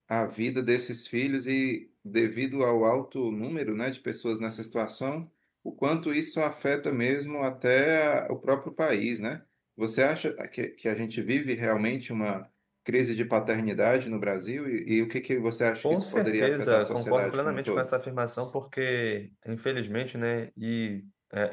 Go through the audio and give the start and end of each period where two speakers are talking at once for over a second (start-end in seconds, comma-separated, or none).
15.9-17.9